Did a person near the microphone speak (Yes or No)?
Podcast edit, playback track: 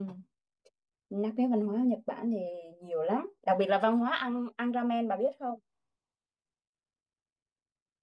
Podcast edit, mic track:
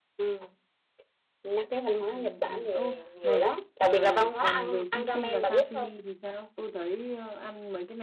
Yes